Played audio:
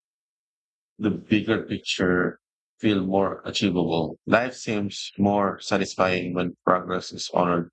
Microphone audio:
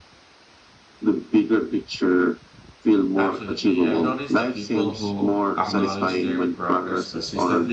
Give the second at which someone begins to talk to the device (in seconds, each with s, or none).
3.1 s